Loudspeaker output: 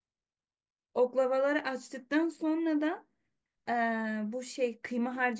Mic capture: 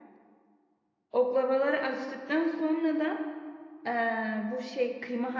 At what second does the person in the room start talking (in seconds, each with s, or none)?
none